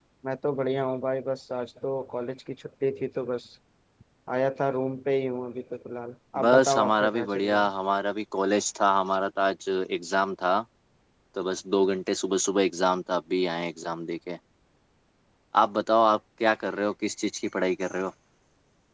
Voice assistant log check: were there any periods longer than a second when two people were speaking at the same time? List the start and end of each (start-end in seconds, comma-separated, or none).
6.4-7.7